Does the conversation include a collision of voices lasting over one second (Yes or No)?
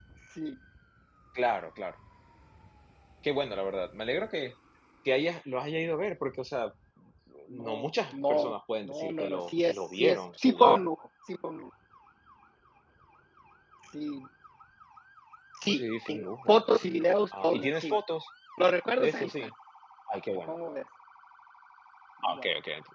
Yes